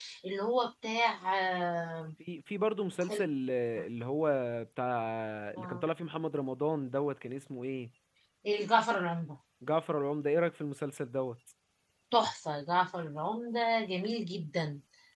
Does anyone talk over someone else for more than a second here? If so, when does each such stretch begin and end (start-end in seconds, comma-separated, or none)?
none